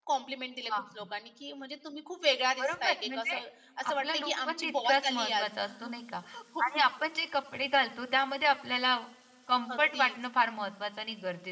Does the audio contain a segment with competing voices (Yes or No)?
Yes